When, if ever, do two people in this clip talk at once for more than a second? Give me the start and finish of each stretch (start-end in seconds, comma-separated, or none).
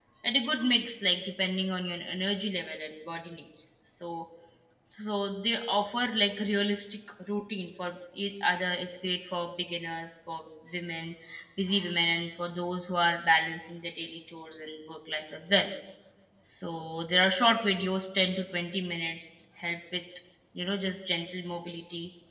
none